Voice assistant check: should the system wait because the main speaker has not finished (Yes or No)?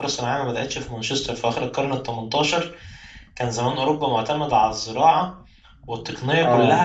Yes